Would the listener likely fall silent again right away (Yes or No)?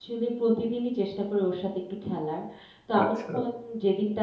Yes